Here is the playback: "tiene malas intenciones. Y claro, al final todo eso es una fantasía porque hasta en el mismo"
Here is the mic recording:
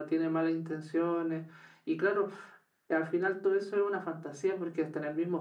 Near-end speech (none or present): none